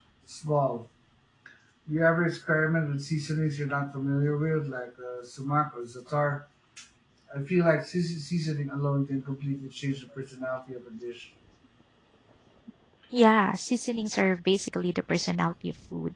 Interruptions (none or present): none